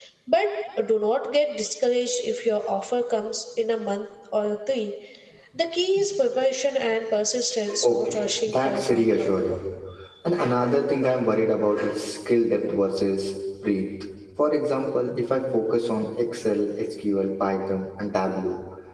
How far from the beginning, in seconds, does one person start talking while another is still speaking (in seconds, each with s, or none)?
7.7 s